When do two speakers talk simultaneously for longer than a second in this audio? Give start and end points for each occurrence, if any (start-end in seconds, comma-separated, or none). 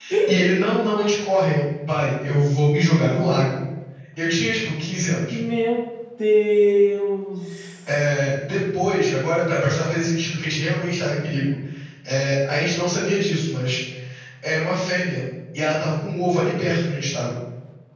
none